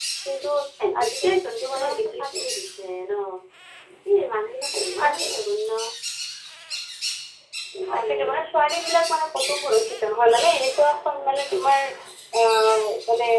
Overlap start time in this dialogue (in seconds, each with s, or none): 1.0 s